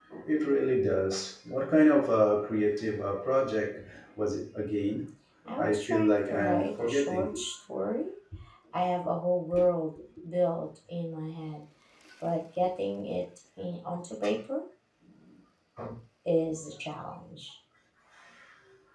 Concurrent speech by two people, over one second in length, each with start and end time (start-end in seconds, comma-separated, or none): 5.6-7.3